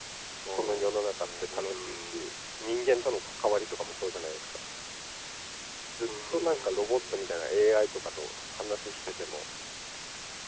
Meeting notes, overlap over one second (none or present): present